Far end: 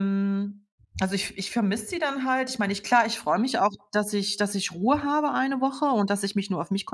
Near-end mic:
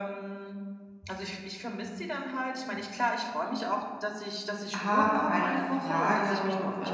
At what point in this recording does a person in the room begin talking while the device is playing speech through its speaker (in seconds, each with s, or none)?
4.8 s